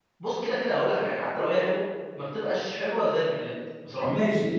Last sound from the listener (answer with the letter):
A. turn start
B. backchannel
A